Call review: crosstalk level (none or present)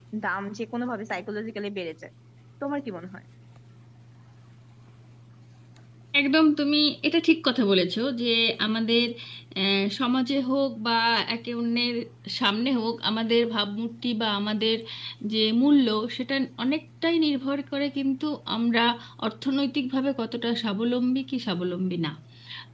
none